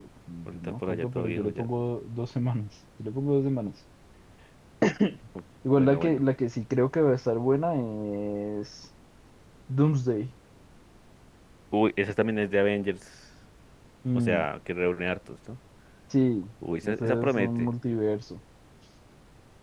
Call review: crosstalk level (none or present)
present